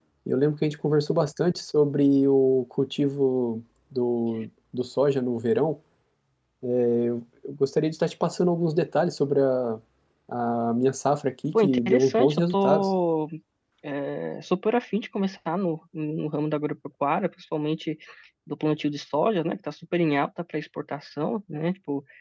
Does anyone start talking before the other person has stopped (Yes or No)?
Yes